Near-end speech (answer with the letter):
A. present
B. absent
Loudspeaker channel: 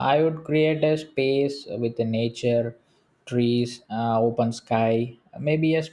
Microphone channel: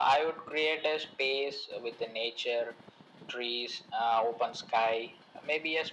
B